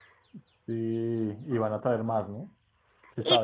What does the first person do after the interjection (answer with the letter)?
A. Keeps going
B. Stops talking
B